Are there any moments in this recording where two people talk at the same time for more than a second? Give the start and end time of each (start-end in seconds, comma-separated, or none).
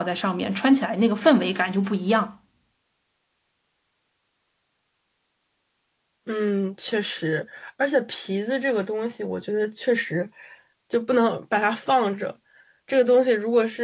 none